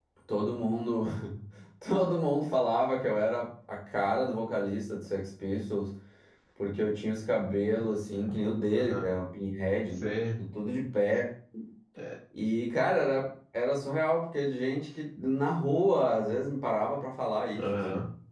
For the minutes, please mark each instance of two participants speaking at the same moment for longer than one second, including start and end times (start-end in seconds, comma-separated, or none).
none